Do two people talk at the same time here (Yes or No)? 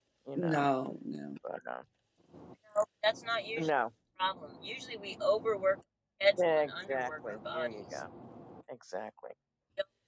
Yes